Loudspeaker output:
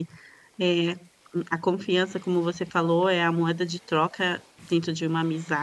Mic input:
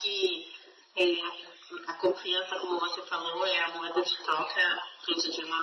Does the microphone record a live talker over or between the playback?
No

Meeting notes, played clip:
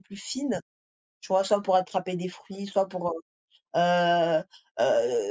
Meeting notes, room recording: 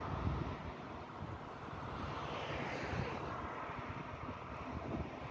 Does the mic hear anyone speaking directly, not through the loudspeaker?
No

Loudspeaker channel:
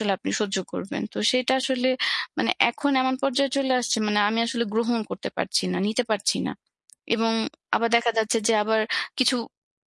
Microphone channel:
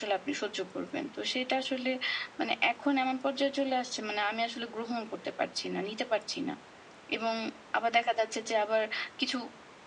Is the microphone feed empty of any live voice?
Yes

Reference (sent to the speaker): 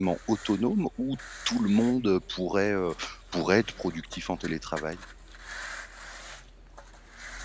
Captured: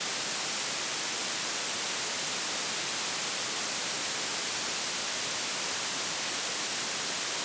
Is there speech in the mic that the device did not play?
No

